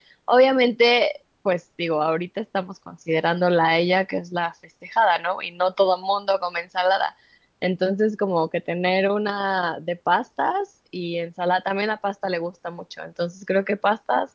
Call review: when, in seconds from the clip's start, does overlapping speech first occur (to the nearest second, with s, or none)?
none